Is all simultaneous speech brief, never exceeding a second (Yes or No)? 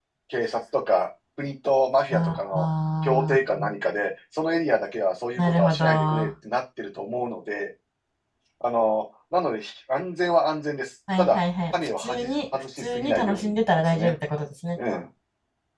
No